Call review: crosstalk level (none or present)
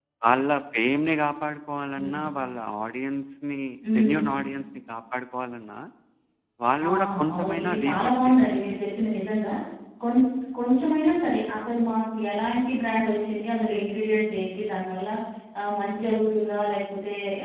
present